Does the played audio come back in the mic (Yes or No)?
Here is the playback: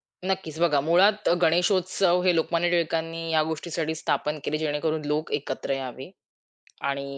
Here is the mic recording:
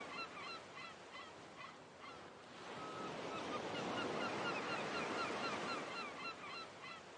No